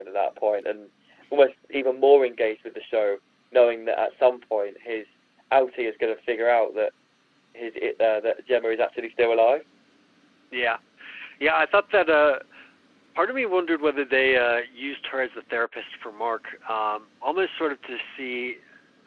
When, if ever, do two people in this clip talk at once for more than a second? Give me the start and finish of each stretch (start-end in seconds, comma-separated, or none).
none